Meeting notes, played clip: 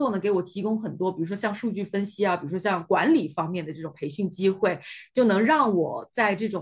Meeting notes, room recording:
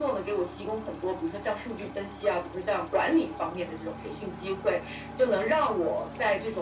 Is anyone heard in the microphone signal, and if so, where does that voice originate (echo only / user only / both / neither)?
echo only